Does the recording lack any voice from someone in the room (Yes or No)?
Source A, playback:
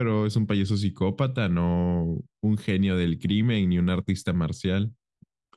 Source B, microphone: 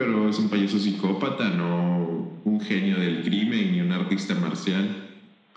Yes